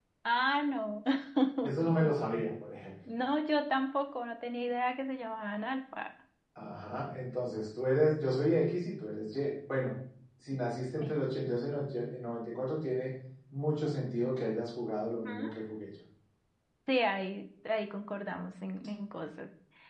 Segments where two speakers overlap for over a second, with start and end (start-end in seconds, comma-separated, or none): none